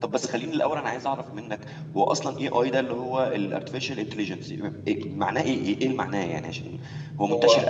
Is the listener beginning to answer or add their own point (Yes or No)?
No